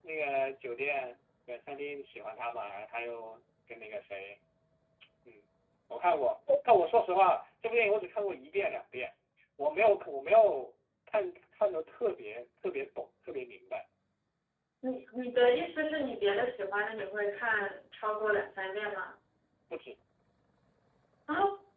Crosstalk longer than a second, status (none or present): none